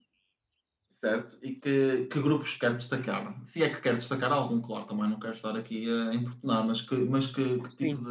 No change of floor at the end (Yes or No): Yes